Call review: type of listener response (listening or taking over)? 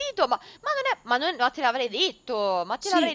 taking over